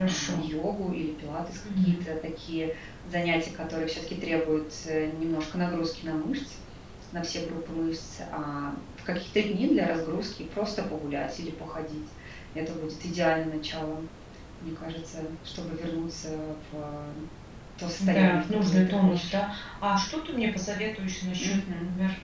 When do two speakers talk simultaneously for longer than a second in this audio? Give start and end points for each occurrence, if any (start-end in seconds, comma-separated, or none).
18.0-19.3